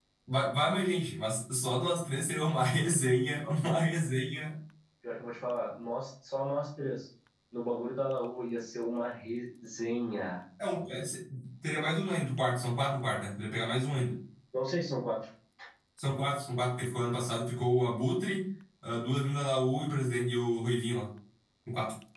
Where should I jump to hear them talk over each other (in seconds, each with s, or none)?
none